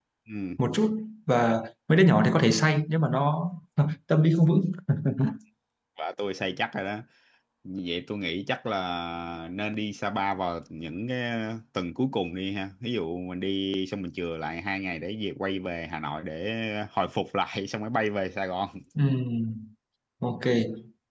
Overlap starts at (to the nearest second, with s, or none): none